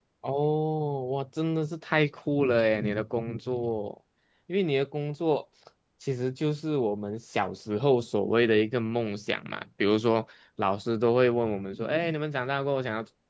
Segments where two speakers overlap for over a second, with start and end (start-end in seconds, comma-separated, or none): none